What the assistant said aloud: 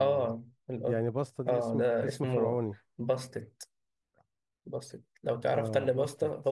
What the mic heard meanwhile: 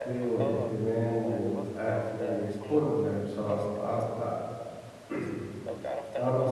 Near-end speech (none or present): present